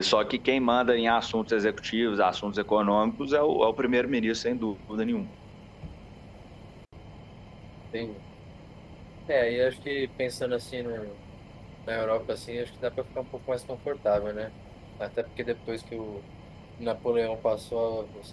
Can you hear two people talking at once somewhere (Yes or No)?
No